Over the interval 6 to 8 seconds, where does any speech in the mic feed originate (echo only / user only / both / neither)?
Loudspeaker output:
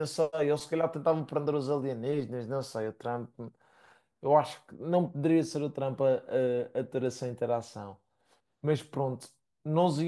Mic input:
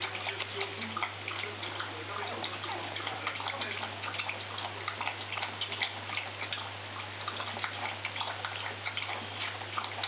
neither